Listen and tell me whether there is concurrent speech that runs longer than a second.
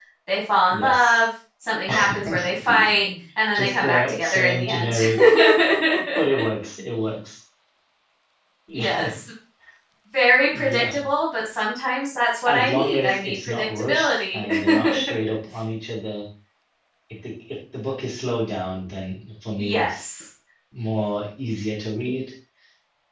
Yes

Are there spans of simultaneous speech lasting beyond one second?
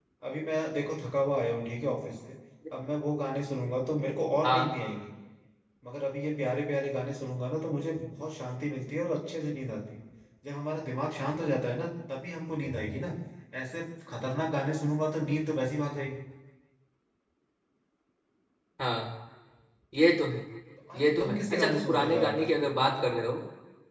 Yes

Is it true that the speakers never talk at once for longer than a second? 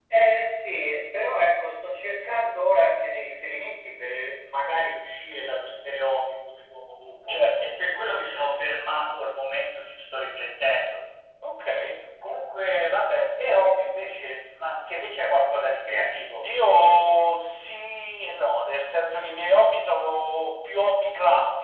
Yes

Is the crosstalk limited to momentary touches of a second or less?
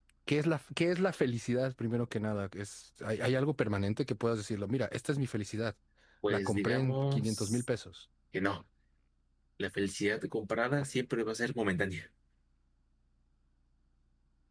No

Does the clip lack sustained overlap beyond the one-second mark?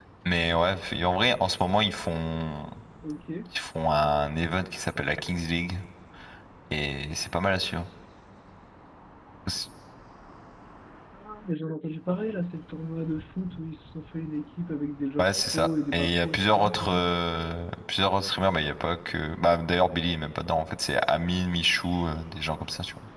No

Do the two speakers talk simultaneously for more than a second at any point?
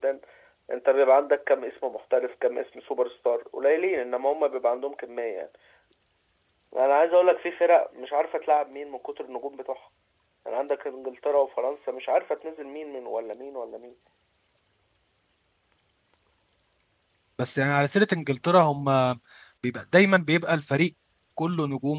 No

